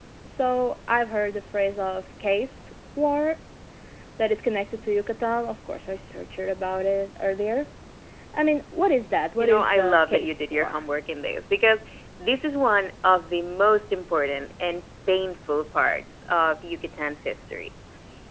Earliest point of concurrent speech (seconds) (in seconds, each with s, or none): 9.4 s